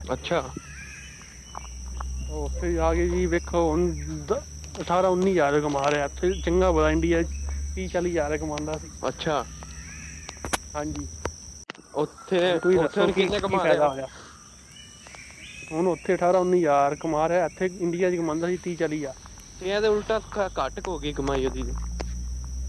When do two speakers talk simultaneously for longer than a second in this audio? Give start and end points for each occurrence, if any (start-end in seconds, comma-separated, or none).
12.5-13.9